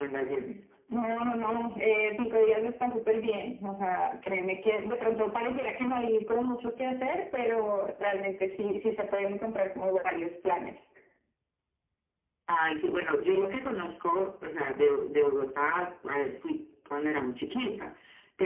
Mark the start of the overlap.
none

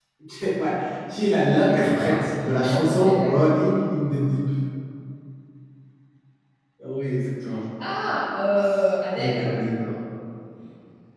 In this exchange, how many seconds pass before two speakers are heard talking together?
1.6 s

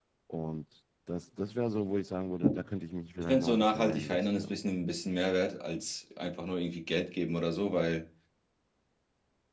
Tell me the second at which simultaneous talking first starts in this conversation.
3.2 s

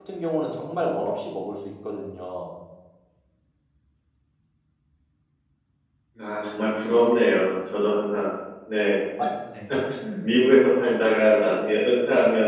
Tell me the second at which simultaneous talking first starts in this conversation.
none

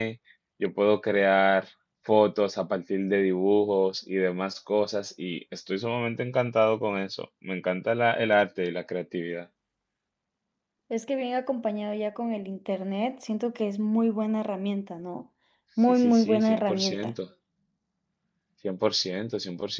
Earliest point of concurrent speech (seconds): 15.9 s

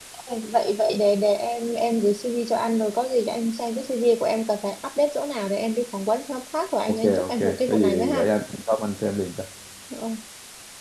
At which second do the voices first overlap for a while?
6.9 s

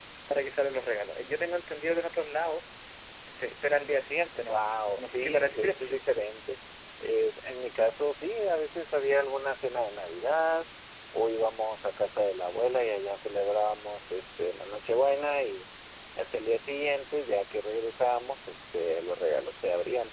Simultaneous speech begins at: 4.4 s

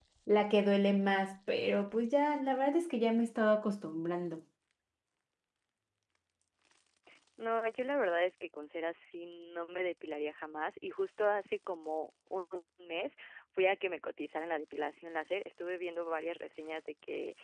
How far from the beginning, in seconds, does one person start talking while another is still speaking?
none

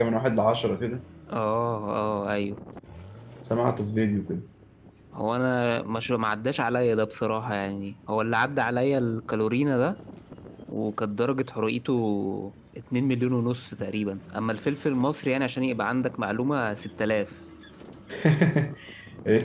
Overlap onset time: none

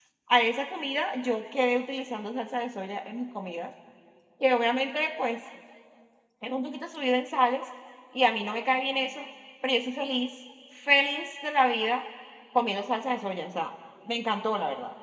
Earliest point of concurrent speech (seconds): none

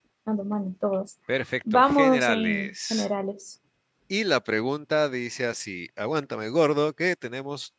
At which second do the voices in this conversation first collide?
1.7 s

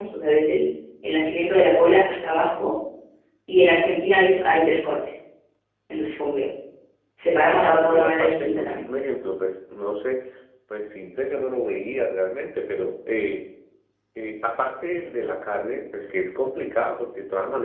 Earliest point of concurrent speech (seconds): 7.5 s

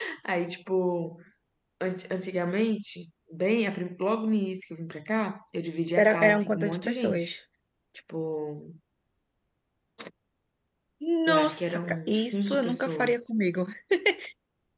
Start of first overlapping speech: 6.0 s

